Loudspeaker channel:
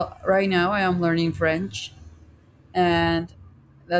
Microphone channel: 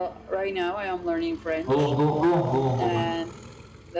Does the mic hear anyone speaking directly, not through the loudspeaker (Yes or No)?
Yes